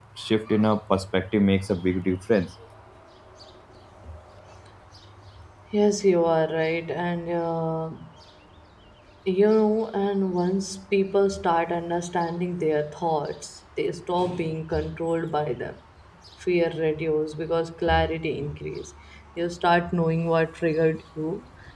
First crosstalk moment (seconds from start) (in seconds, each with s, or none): none